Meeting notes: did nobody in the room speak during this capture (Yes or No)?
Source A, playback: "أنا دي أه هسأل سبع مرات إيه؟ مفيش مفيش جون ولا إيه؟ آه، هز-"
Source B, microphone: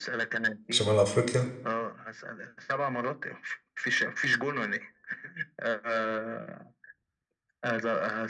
No